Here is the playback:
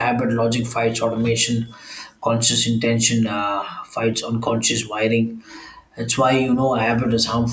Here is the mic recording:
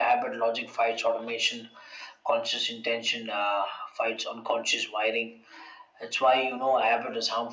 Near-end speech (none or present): none